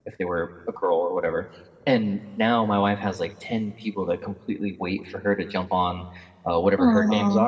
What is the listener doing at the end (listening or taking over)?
listening